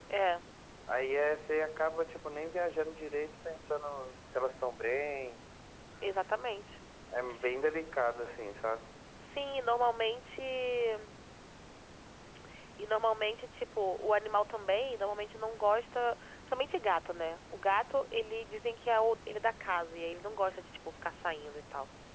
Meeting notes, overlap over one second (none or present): none